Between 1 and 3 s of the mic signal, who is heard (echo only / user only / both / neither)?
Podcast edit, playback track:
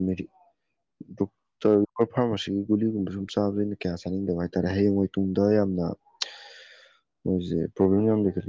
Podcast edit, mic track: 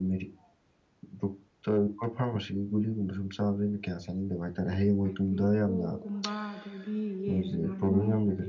echo only